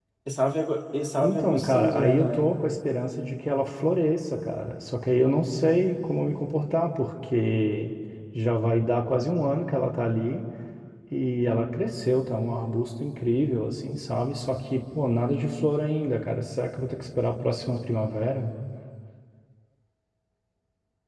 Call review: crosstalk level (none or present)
present